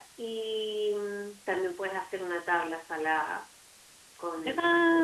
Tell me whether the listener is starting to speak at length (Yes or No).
Yes